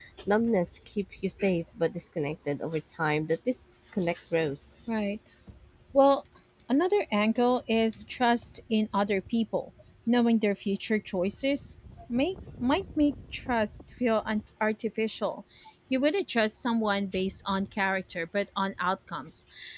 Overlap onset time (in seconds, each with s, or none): none